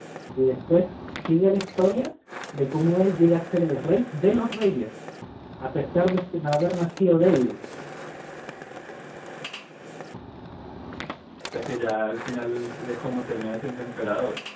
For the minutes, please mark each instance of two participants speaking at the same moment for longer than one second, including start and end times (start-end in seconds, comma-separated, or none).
none